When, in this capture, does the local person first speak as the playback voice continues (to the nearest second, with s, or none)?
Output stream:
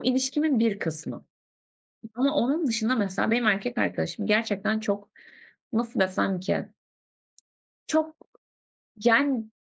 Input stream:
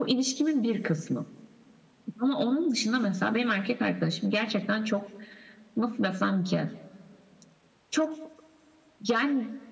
none